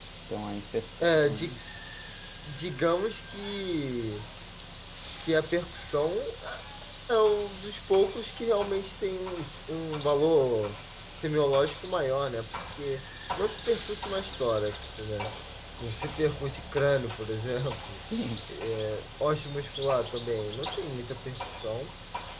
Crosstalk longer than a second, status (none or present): none